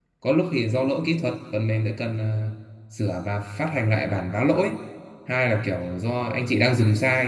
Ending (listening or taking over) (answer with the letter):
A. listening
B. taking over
A